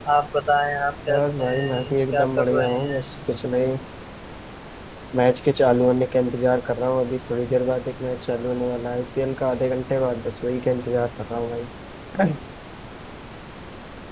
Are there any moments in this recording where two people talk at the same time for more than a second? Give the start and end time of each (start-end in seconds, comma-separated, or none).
1.1-3.1